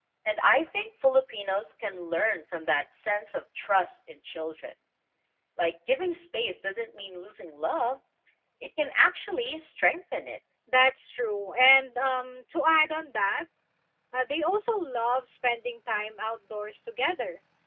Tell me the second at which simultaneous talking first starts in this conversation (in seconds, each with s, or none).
none